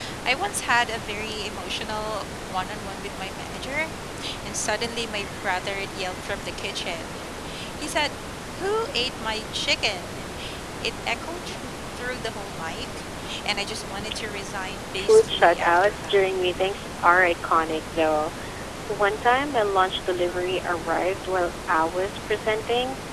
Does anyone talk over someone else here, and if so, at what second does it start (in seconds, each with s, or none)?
14.9 s